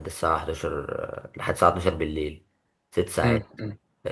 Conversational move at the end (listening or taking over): taking over